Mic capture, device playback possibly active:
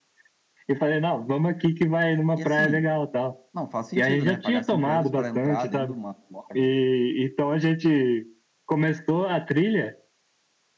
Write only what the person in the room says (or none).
E assim, não faz sentido, né? Pagar 5 euros pra entrar dentro de uma loja.